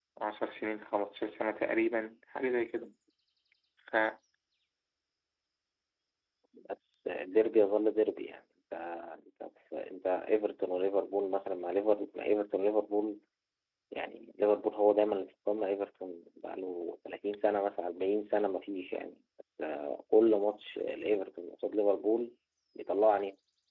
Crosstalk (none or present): none